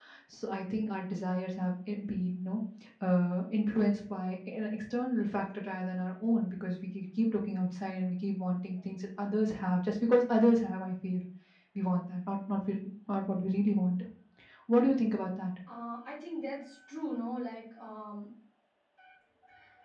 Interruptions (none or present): none